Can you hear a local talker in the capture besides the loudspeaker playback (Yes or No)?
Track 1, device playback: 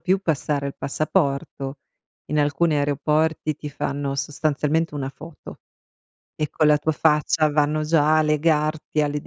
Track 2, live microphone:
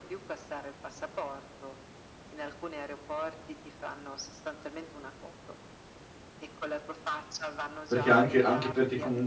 Yes